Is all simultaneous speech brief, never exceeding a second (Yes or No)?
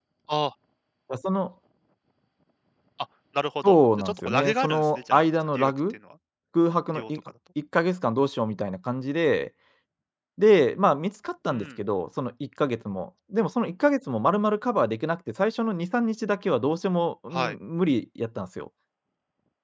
No